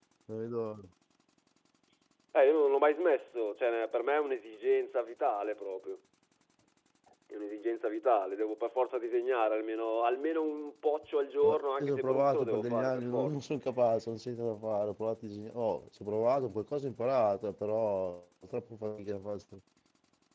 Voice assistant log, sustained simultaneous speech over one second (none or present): present